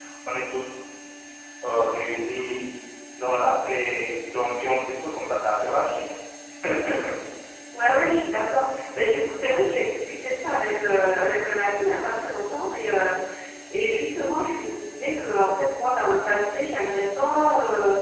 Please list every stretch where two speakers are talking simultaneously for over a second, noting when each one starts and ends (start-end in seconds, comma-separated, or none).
none